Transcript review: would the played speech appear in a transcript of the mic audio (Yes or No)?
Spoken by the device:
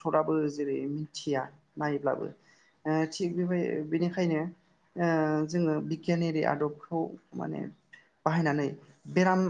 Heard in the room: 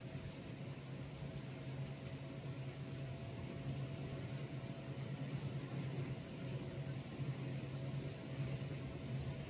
No